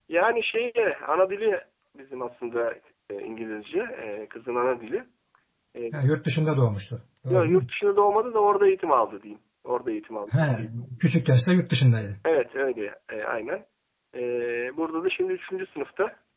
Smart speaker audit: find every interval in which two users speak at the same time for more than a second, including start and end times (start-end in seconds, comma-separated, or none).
none